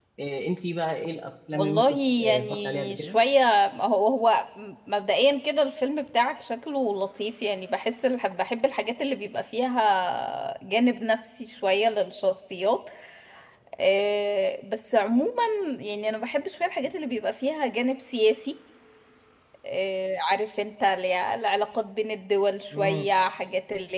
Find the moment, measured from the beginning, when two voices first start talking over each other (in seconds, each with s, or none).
1.5 s